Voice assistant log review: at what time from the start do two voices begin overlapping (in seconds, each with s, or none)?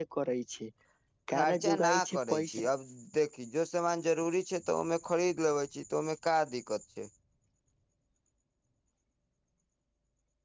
1.3 s